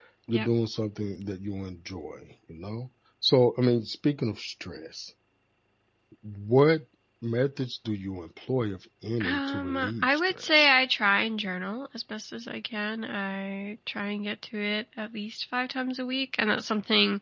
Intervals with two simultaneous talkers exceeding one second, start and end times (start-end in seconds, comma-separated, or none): 9.2-10.7